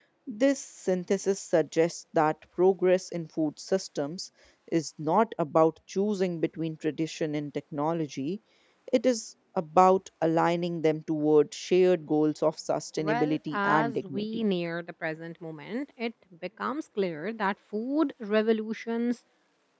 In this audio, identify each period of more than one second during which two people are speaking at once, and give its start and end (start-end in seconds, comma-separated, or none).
13.0-14.4